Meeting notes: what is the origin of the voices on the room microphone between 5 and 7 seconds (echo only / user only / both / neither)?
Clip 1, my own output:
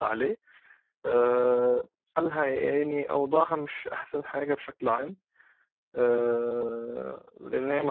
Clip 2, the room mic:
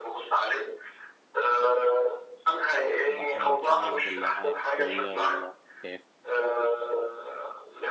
both